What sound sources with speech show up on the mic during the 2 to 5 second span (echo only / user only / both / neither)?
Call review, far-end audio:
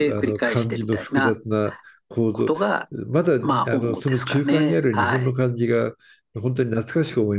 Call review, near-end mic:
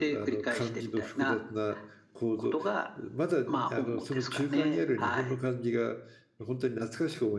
echo only